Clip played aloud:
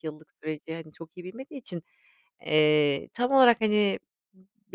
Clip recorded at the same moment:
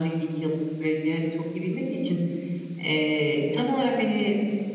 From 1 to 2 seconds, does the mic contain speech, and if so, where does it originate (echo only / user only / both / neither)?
echo only